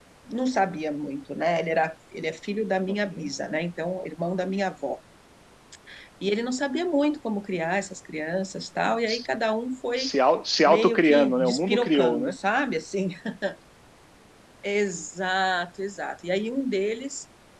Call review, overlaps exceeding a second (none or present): present